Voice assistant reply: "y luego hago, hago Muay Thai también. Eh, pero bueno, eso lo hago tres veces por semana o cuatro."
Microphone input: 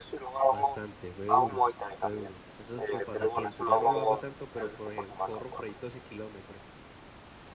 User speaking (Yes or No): Yes